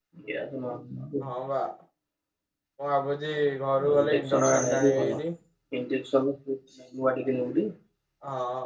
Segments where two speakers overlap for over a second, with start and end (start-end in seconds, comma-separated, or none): 3.9-5.2